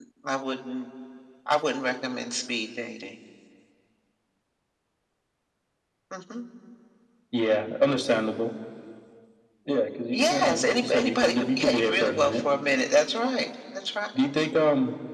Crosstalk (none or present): present